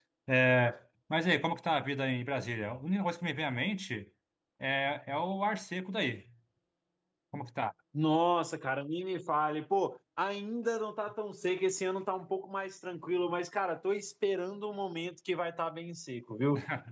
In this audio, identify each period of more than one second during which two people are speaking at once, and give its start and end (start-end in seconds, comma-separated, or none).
none